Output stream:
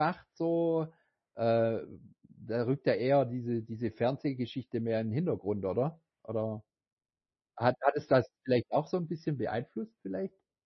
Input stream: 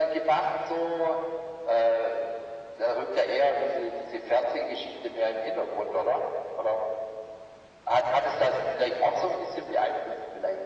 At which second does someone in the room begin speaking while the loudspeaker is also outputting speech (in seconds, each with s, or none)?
none